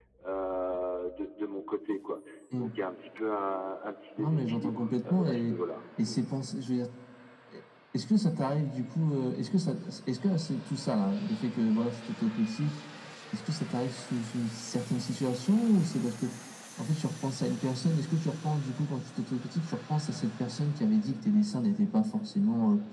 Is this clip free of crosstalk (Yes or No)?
No